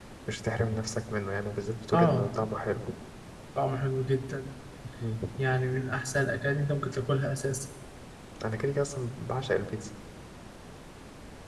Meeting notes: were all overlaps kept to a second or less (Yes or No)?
Yes